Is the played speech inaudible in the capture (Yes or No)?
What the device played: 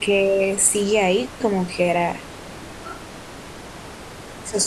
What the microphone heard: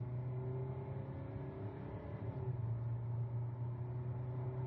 Yes